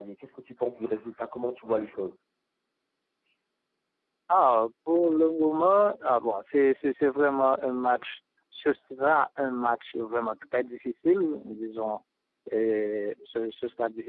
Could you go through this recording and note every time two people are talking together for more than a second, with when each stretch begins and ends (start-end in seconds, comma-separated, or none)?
none